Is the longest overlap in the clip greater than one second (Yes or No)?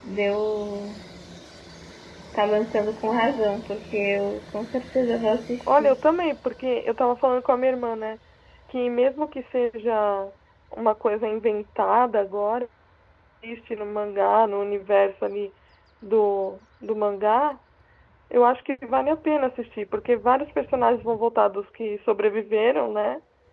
No